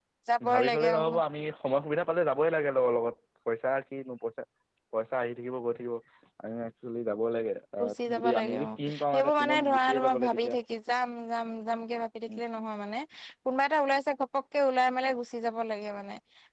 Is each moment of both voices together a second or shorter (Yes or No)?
No